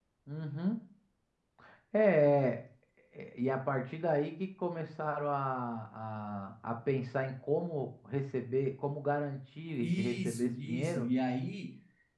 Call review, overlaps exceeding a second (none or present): present